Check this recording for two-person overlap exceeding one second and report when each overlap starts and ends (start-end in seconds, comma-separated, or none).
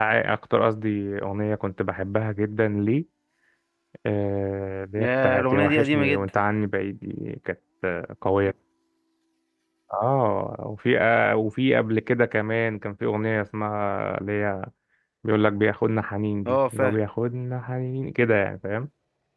5.0-6.4